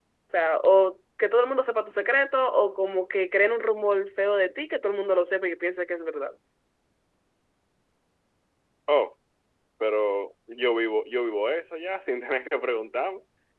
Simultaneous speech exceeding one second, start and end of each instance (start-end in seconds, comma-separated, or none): none